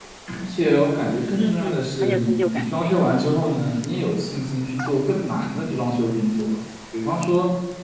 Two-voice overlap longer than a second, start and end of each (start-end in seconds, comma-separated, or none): 1.4-3.2